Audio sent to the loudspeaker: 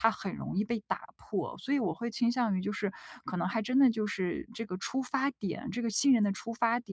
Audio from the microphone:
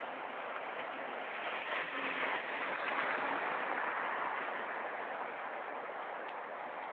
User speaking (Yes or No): No